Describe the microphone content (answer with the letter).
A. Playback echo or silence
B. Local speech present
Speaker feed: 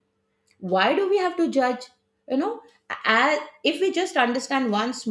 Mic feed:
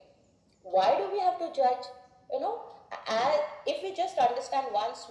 A